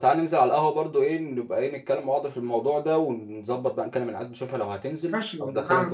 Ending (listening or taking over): taking over